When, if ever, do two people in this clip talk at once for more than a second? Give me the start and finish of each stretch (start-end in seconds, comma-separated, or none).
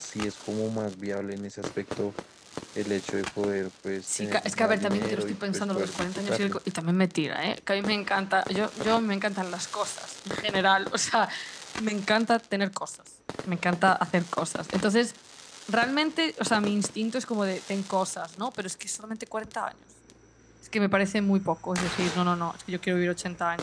4.1-6.6